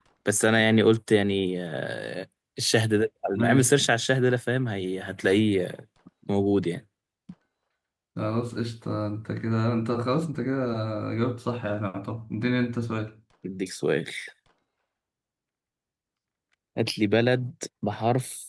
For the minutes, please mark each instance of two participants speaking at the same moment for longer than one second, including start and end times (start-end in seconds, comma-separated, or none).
none